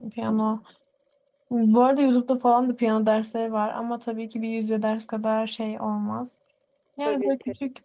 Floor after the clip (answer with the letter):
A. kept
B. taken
A